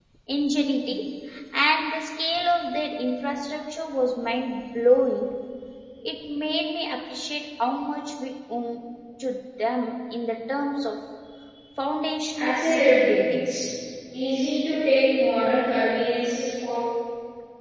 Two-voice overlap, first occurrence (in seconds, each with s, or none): 12.3 s